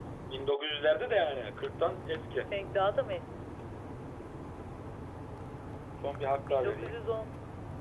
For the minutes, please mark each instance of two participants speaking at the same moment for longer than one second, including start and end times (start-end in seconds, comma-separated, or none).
none